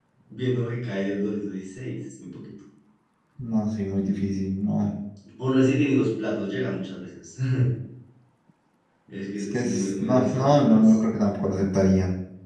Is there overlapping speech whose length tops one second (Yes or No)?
Yes